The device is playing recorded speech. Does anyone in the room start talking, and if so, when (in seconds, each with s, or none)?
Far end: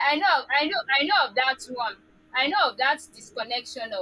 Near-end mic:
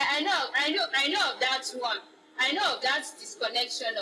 none